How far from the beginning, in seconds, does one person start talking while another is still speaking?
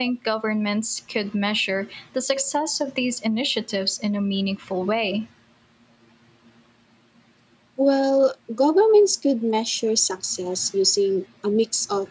none

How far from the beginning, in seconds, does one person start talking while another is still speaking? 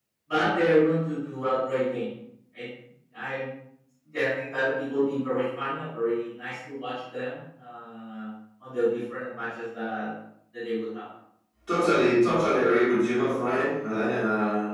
none

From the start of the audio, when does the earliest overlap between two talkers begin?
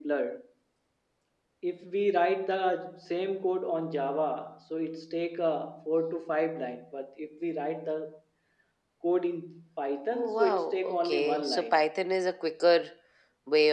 10 s

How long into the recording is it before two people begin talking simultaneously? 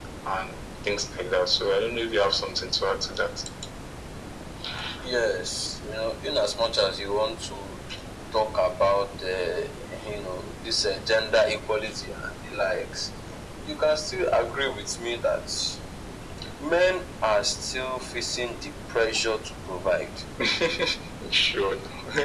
none

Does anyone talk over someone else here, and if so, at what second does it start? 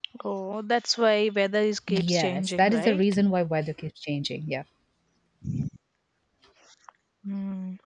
2 s

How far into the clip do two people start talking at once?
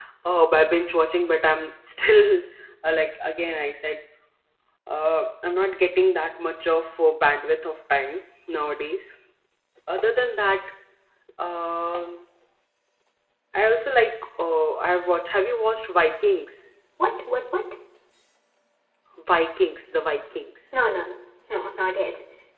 none

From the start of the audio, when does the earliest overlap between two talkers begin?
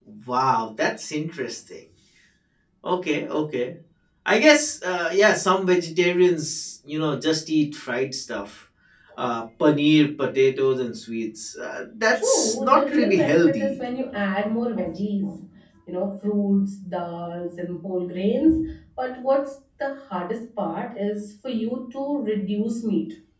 12 s

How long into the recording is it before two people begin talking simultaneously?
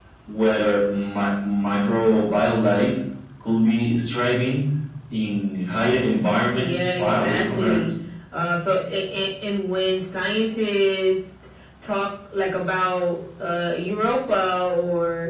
7 s

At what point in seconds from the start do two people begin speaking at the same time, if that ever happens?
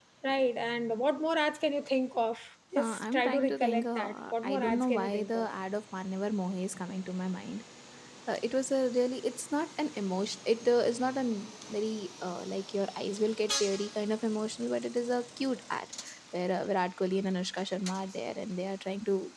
3 s

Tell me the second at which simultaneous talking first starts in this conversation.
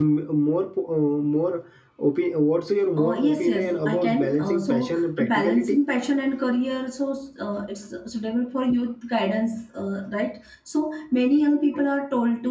3 s

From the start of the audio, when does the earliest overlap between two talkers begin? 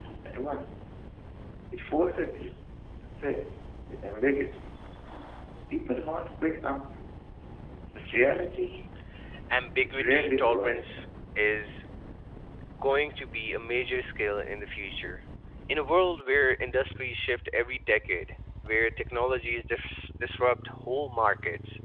10 s

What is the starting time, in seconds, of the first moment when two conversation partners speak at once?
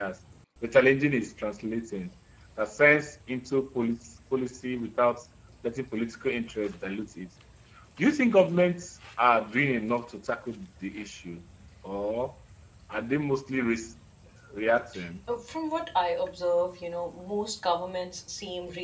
none

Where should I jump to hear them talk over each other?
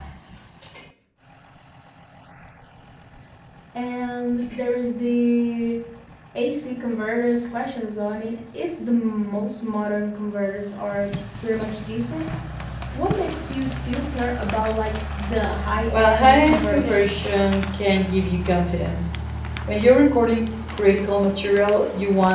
16 s

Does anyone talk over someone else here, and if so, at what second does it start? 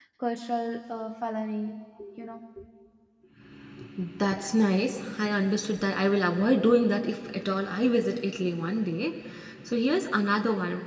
none

